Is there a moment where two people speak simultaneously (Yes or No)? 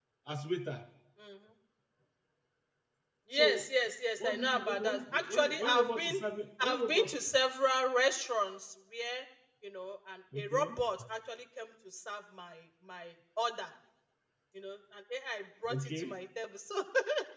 Yes